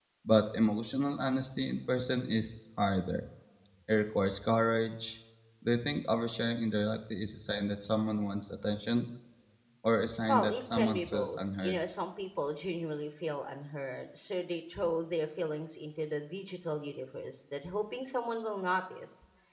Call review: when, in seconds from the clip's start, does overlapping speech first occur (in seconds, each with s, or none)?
10.3 s